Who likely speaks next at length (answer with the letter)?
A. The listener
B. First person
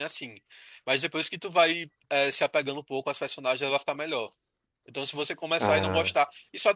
B